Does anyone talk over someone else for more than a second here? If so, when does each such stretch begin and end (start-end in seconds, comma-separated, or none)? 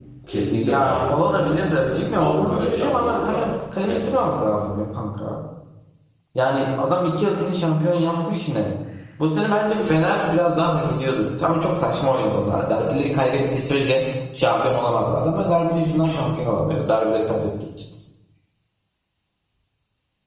0.6-3.3